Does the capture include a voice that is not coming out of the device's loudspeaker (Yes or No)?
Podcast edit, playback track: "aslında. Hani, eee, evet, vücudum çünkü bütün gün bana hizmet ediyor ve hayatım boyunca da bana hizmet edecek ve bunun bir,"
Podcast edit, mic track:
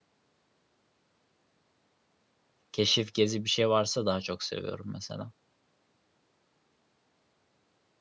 Yes